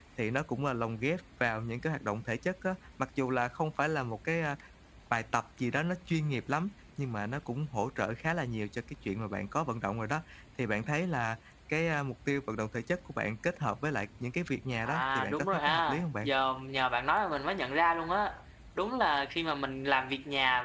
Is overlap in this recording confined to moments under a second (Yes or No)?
No